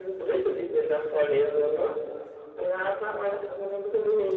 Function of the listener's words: listening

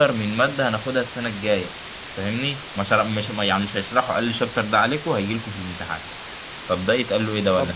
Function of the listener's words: taking over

